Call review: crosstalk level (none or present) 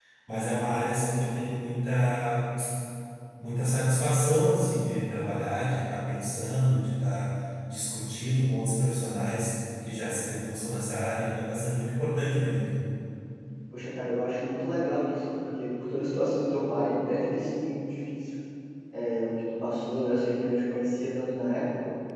none